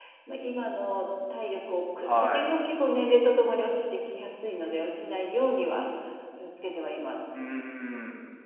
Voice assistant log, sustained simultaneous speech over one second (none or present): none